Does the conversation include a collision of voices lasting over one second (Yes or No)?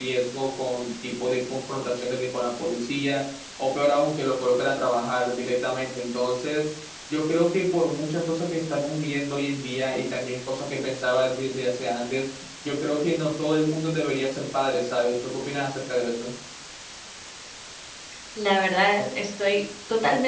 No